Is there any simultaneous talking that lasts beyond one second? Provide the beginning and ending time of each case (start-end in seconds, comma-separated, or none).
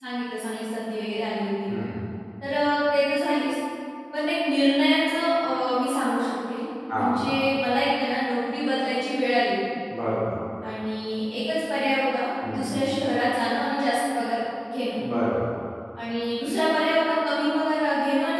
none